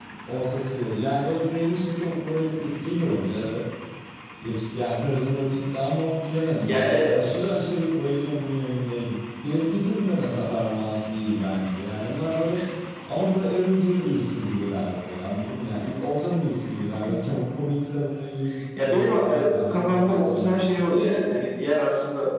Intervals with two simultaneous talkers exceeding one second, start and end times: 18.8-20.6

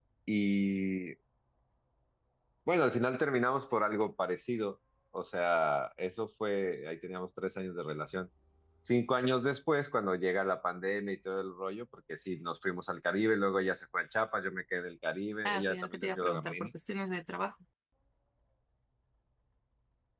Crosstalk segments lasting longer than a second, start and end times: 15.4-16.7

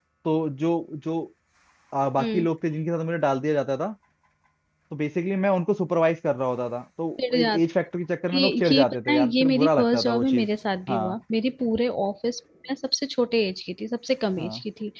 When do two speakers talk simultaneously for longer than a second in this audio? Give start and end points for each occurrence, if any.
8.4-10.5

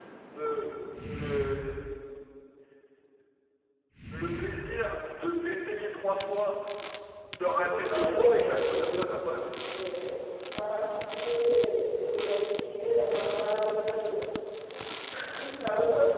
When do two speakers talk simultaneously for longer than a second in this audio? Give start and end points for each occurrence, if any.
7.6-9.5

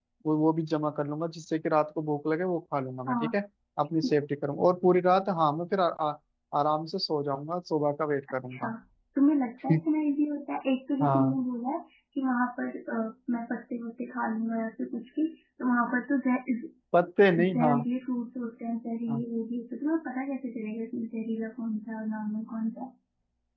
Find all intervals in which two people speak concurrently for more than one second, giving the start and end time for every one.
none

